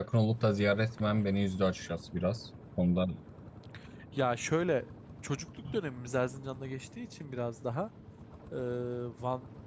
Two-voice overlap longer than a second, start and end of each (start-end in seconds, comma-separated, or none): none